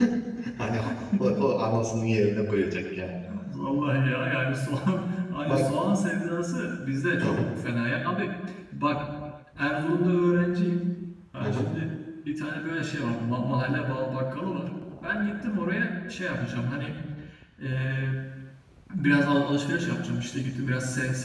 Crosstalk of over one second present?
No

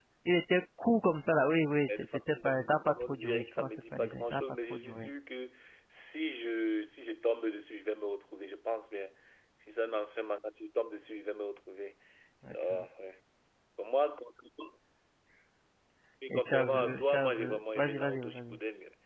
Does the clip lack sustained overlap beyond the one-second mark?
No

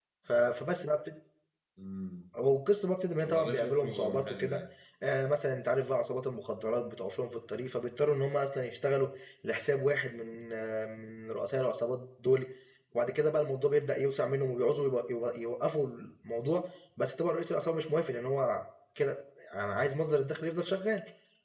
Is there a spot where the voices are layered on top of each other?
Yes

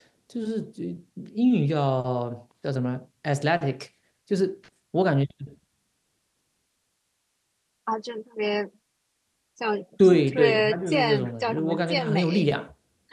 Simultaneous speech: Yes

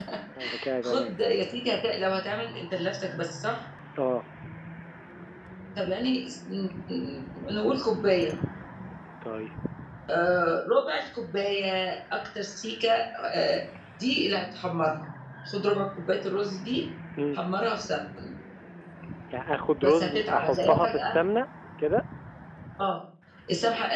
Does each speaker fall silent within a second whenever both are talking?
No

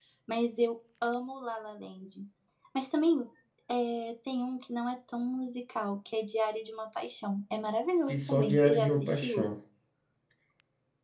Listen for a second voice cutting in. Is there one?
Yes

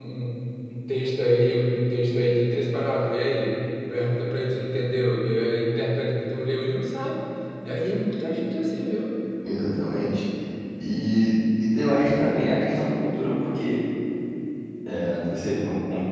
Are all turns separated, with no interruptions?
Yes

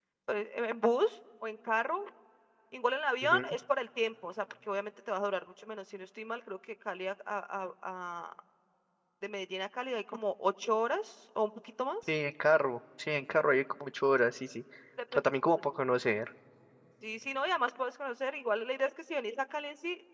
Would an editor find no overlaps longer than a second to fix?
Yes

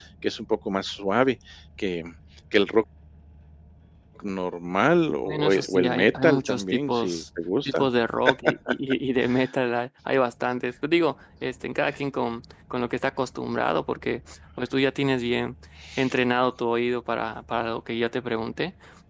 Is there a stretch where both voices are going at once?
Yes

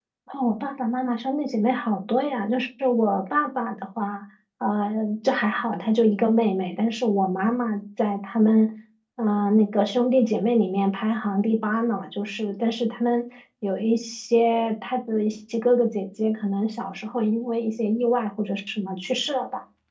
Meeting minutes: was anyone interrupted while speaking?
No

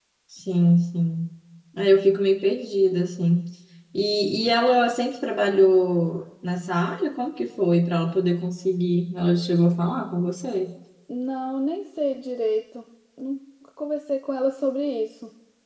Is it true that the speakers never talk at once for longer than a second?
Yes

